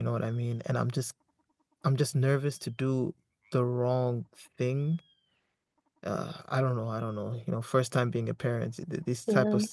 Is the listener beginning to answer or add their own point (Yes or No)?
No